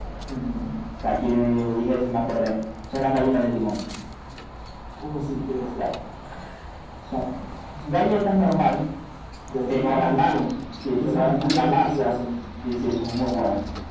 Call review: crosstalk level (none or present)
present